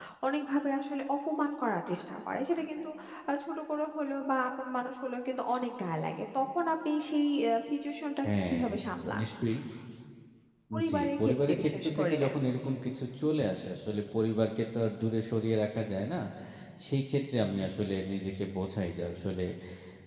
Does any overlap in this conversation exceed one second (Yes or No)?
Yes